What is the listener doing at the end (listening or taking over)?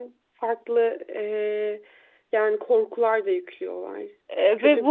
taking over